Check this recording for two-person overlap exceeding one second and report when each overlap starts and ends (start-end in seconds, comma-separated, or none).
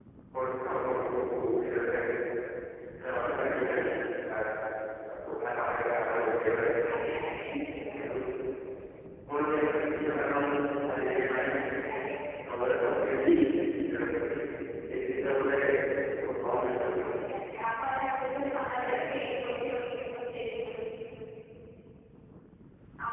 none